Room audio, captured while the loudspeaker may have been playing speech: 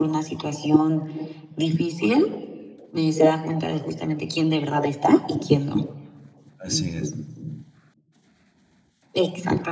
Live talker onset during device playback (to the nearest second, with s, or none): 7 s